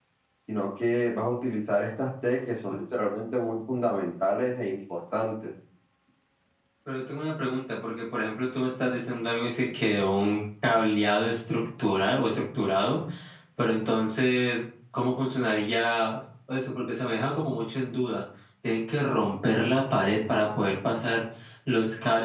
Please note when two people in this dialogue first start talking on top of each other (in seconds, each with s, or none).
none